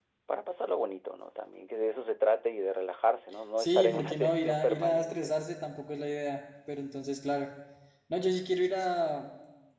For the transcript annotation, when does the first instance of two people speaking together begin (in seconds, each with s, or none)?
3.6 s